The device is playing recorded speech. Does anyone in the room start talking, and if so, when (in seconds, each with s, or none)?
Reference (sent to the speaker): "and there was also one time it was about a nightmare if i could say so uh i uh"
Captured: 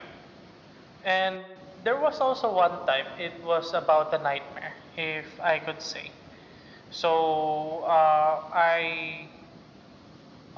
none